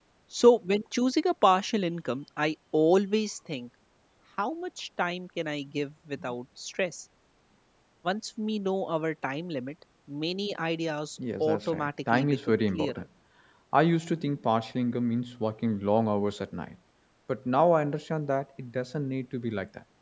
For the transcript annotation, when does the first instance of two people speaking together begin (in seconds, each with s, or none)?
11.2 s